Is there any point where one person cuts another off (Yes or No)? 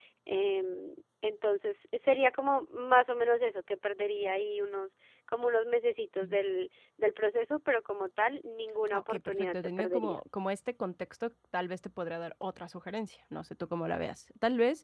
Yes